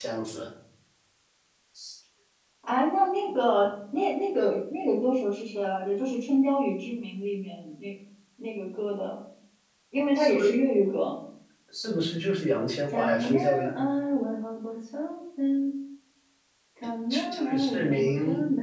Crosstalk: present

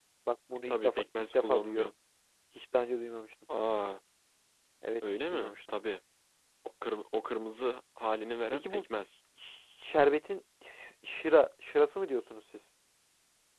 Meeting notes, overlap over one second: present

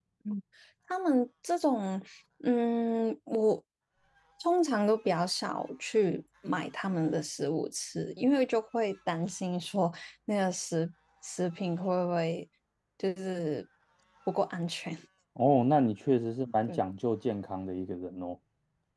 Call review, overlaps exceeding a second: none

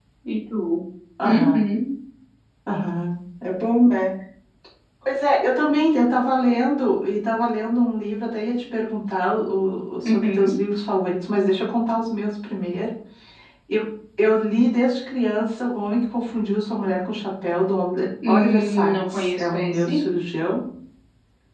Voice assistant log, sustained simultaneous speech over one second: present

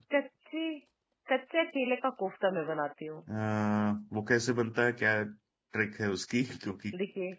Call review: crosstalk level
none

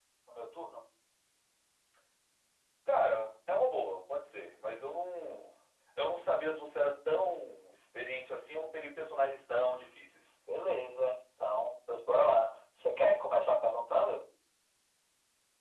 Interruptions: none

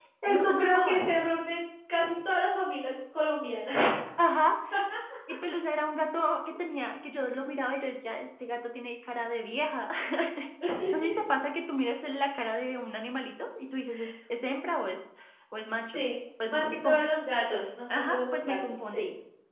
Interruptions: present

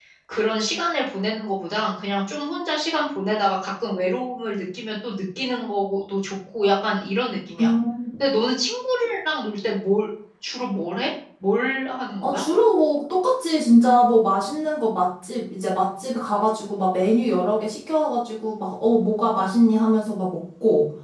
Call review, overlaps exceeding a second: none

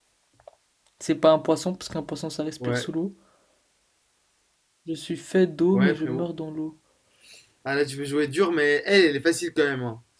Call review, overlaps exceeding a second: none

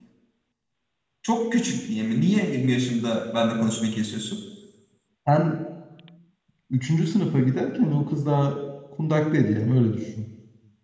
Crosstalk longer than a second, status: none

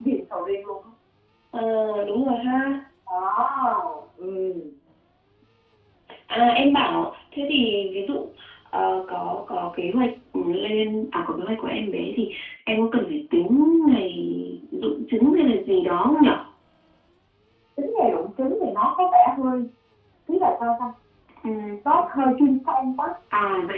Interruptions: none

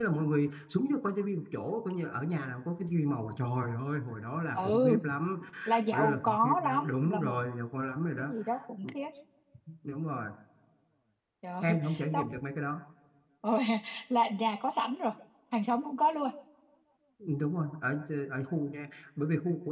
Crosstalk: present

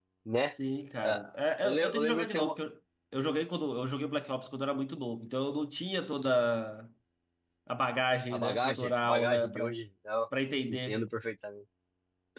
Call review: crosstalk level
present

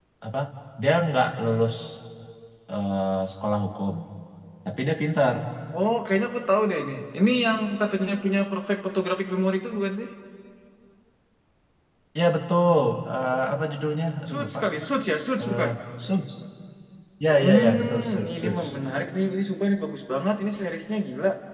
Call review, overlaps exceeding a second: present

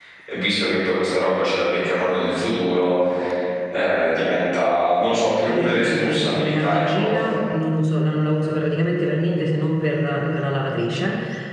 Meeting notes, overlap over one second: present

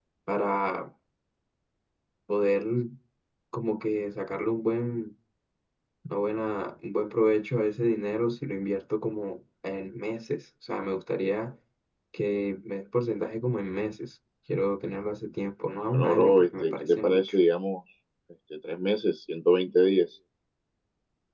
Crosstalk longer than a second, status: present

